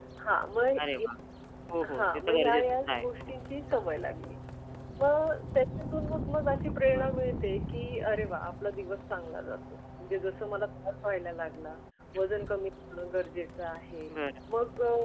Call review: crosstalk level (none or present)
present